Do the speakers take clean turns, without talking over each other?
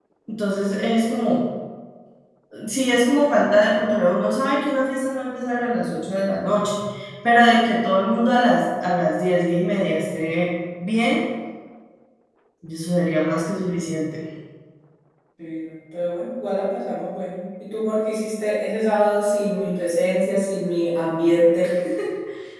Yes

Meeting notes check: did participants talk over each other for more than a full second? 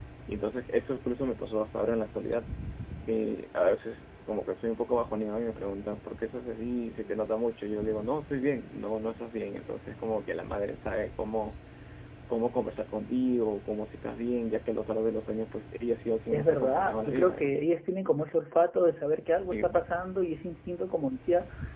Yes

